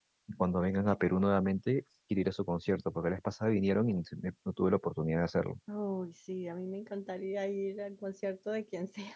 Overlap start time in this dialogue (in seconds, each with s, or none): none